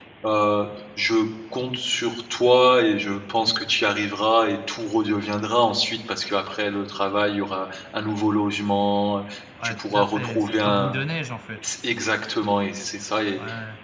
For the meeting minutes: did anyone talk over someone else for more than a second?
Yes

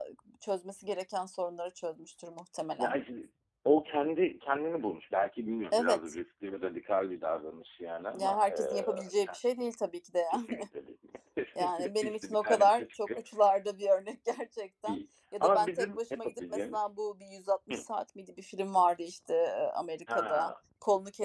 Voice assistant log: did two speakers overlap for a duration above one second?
Yes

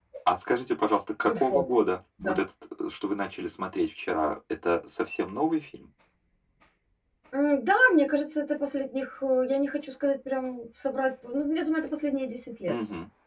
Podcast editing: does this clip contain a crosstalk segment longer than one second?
No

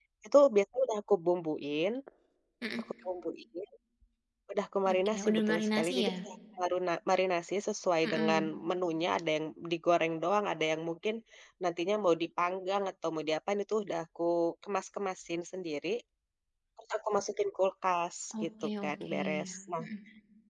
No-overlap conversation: No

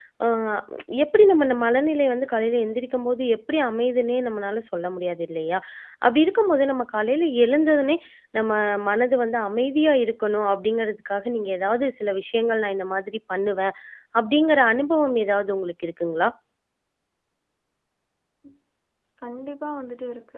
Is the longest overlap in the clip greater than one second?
No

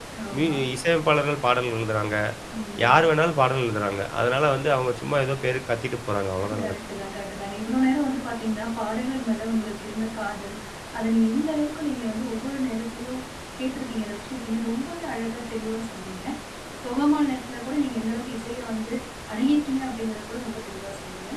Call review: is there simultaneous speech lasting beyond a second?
No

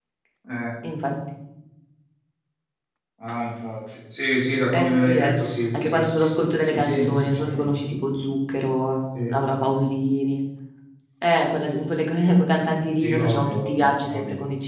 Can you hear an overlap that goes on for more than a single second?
Yes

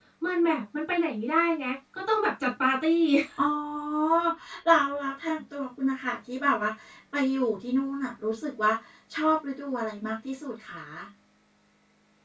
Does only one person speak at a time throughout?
Yes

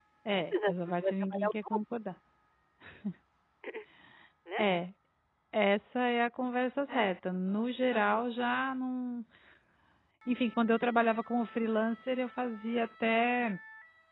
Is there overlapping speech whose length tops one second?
Yes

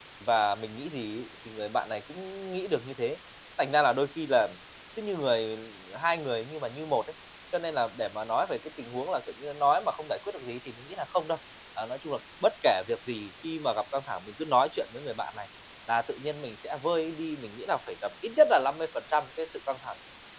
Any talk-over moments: No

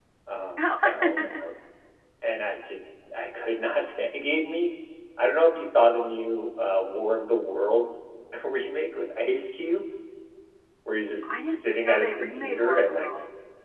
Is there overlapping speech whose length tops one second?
Yes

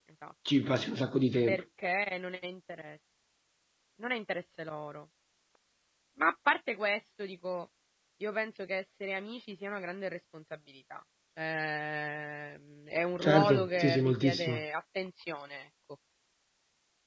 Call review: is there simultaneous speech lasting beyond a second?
Yes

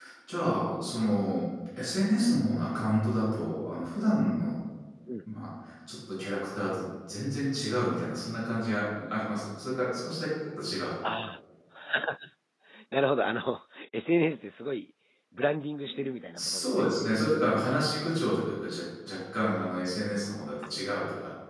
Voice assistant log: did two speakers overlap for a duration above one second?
No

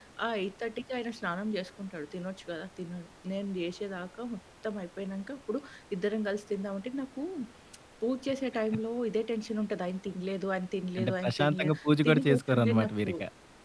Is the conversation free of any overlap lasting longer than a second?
No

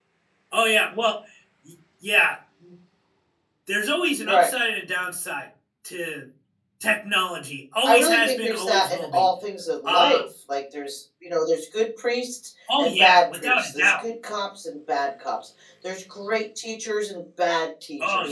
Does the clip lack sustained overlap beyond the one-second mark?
No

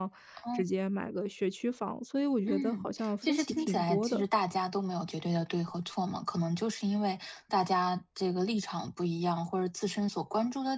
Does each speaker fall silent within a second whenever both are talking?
No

